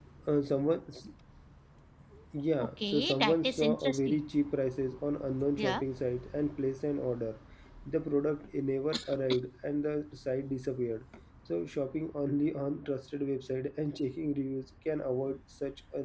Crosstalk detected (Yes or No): Yes